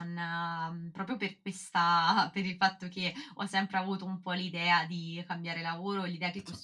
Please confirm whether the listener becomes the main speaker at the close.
No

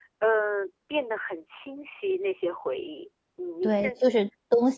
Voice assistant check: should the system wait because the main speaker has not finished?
No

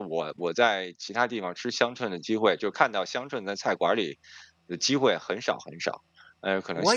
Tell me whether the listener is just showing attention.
No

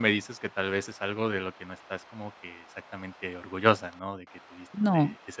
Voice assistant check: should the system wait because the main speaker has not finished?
Yes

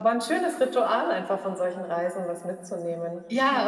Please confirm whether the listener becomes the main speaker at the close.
Yes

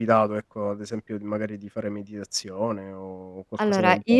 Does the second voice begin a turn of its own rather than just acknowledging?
Yes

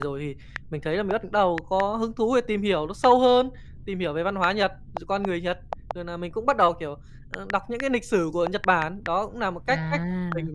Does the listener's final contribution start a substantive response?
No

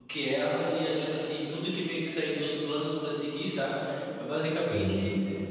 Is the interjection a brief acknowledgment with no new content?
Yes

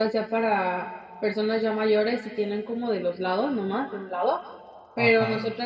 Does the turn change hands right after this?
No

